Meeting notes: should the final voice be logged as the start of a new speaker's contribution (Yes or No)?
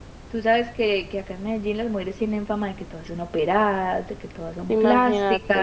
No